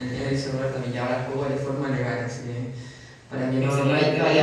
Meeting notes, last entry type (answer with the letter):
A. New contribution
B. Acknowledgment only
B